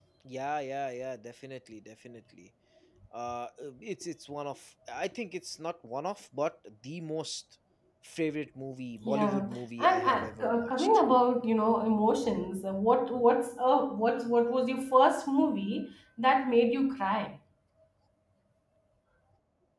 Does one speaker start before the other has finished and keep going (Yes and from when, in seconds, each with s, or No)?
Yes, from 9.0 s